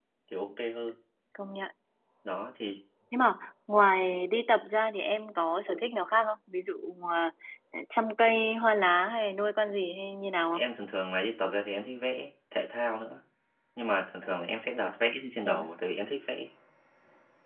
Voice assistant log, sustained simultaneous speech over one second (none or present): none